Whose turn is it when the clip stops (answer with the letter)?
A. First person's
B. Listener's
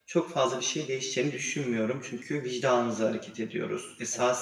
A